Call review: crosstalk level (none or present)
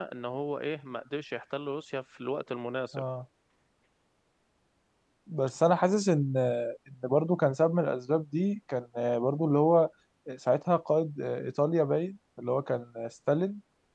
none